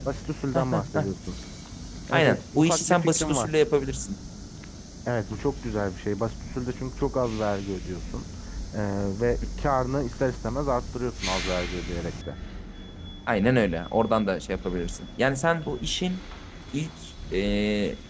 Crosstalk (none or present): present